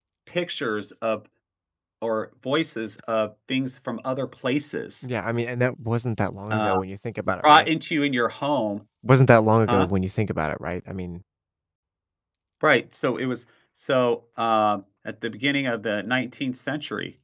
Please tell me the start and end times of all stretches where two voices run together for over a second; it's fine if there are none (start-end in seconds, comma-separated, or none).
none